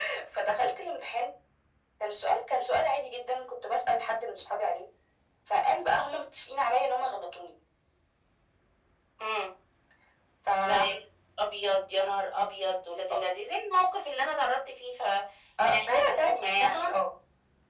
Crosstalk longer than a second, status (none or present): present